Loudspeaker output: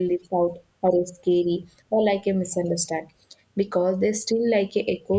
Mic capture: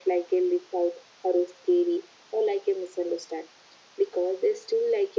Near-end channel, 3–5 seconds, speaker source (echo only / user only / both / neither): echo only